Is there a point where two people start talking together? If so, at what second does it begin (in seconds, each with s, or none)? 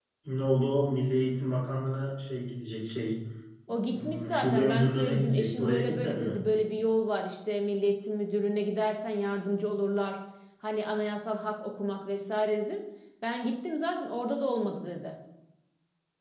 3.9 s